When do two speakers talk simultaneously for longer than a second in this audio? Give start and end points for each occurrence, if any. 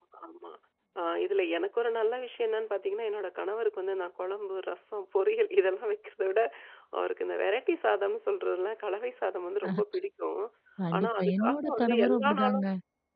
11.0-12.7

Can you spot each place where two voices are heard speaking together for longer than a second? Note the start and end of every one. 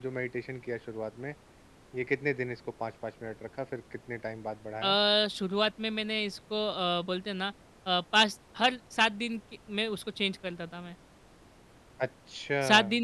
none

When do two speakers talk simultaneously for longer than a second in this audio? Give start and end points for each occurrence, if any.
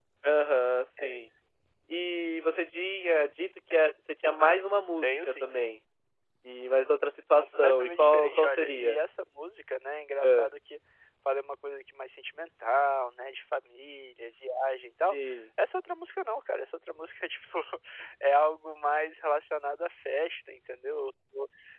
7.4-9.0

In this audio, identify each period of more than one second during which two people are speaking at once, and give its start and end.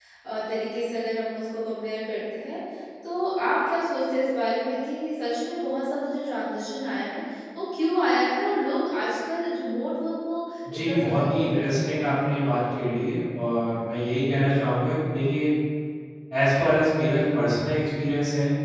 10.8-12.3

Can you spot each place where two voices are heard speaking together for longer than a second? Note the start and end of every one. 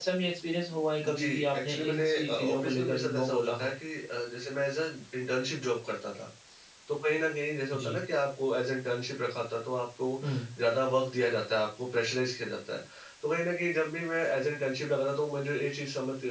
1.0-3.7

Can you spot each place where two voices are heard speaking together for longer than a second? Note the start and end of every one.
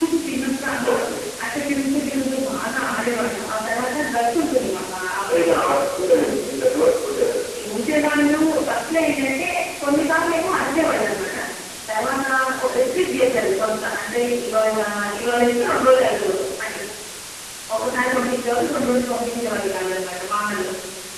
none

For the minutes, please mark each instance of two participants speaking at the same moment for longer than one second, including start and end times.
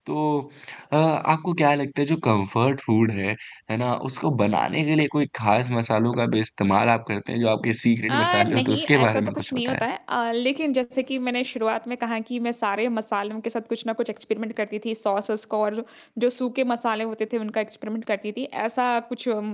8.1-9.8

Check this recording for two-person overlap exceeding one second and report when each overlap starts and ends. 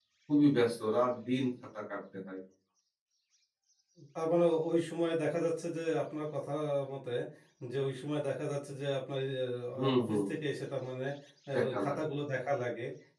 none

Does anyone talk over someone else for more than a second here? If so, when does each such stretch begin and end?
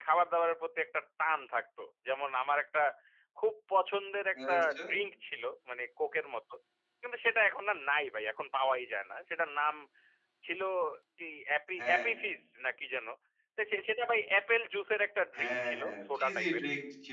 15.4-16.6

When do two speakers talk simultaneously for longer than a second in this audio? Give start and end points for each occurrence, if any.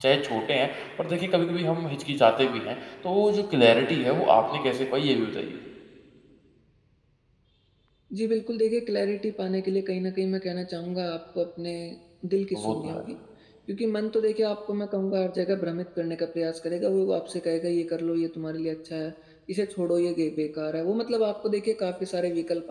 none

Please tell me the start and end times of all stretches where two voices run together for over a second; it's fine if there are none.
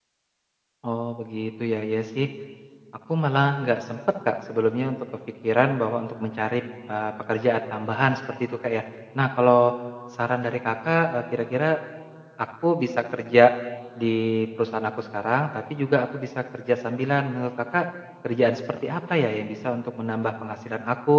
none

